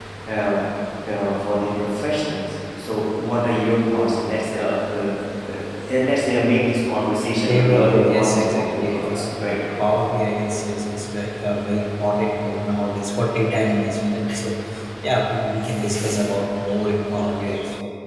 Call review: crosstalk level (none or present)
present